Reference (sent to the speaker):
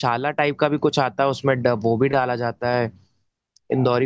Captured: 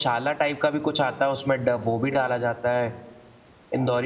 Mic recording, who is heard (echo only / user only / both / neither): echo only